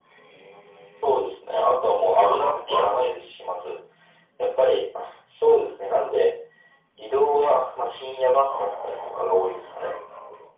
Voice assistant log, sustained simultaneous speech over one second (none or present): present